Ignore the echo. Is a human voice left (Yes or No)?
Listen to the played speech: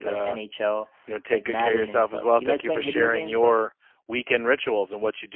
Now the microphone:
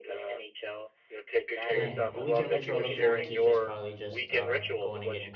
Yes